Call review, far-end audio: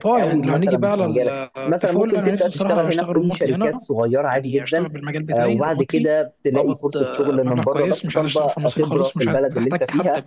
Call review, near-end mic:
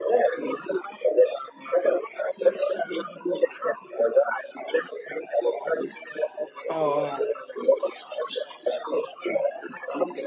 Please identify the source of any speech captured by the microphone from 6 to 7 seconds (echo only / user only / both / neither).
both